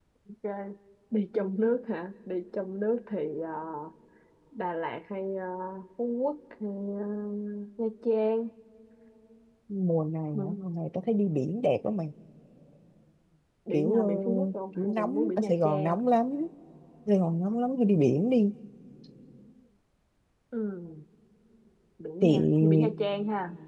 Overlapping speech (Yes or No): Yes